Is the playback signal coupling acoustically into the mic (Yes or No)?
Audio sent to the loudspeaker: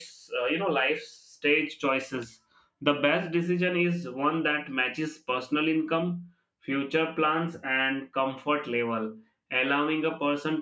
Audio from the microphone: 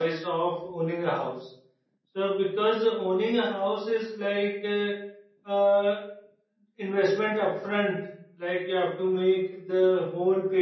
No